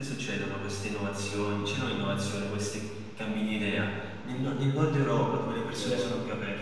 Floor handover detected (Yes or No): No